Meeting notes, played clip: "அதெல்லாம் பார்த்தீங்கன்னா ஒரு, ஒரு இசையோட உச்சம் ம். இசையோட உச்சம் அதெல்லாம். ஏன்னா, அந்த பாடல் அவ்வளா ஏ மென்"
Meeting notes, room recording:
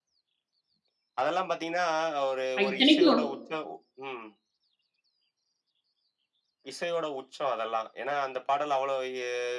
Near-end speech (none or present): present